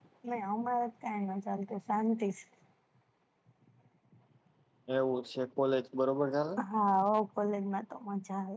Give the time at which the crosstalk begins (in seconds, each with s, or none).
none